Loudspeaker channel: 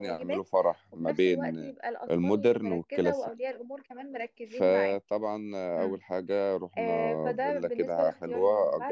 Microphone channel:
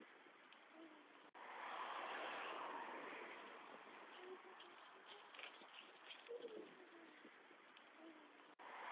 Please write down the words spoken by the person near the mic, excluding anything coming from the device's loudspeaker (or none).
none